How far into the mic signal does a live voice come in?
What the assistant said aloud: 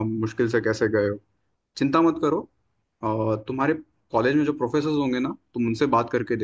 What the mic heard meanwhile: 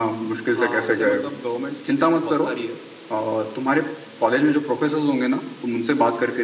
1 s

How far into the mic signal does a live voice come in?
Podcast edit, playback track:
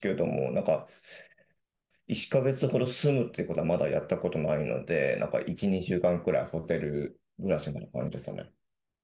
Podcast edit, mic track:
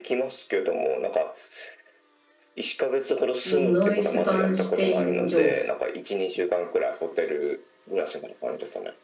3 s

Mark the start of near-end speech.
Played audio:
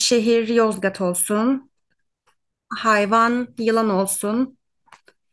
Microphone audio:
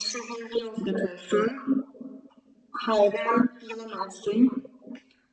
none

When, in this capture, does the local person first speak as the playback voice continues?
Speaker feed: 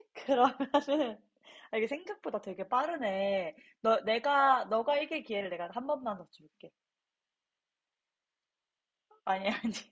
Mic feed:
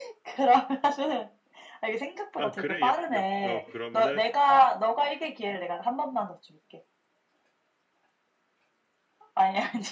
2 s

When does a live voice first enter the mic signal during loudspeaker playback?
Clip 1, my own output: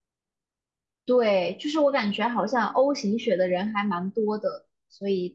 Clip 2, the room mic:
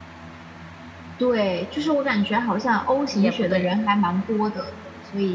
3 s

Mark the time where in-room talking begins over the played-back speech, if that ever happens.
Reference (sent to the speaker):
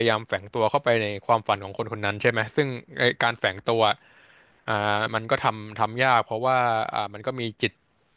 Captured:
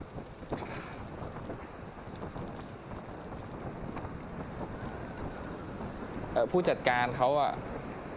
6 s

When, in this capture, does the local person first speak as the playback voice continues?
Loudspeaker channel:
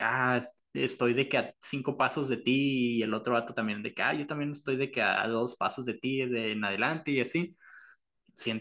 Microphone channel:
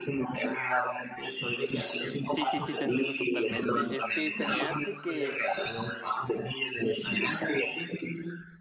2 s

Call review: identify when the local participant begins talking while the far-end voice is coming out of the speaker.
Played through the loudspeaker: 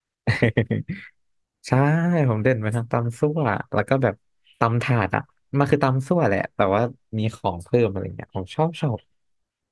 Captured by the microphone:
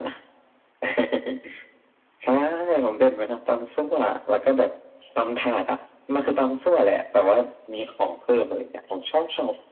none

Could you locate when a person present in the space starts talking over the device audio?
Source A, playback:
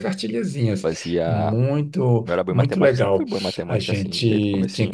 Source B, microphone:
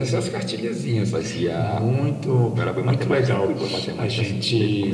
none

